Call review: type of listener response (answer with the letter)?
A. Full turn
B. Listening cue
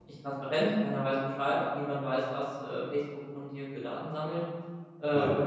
B